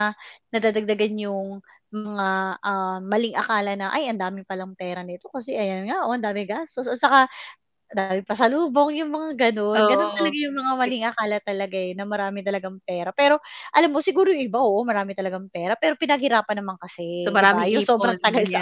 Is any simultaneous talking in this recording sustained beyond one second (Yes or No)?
Yes